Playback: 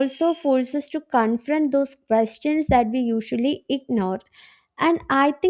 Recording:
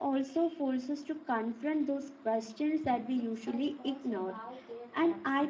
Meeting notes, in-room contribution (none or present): present